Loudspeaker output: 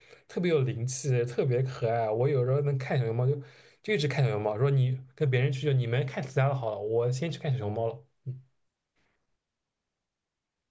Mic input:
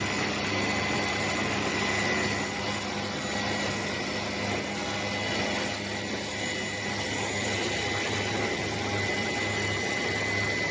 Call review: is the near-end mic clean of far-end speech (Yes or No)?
Yes